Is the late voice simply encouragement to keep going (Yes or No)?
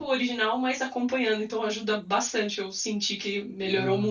No